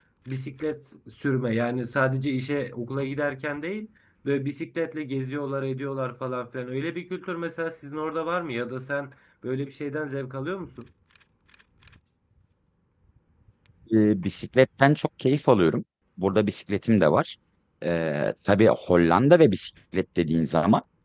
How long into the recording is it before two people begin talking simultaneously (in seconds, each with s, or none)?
none